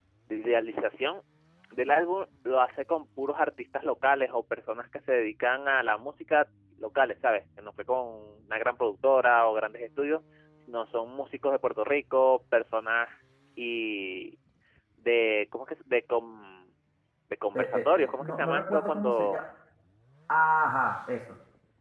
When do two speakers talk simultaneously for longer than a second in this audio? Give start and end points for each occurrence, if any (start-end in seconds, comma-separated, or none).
17.6-19.4